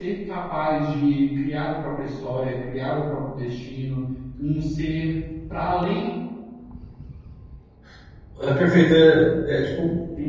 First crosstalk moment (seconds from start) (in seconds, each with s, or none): none